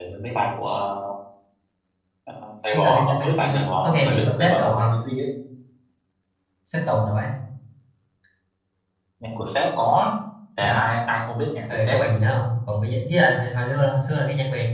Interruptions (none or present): present